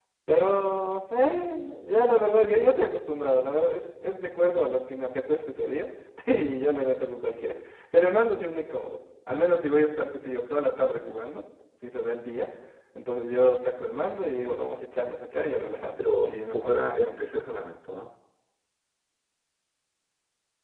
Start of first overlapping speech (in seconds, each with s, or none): 16.0 s